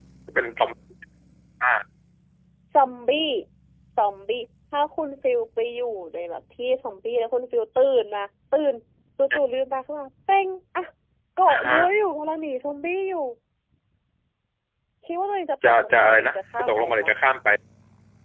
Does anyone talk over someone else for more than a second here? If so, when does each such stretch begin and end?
15.7-17.1

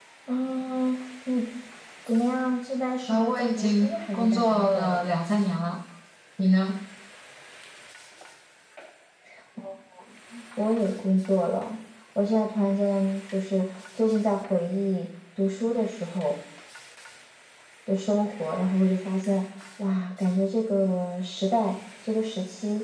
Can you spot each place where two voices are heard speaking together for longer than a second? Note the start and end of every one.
3.1-5.0

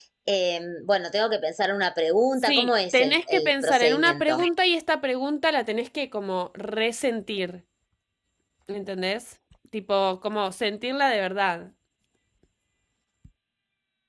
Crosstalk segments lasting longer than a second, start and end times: 2.4-4.5

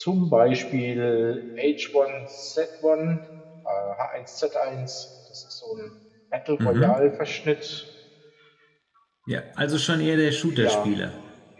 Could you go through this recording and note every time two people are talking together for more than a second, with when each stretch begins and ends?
none

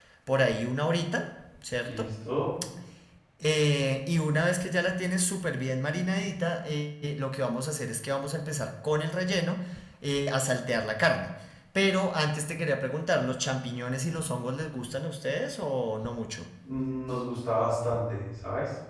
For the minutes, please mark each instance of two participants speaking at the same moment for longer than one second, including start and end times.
none

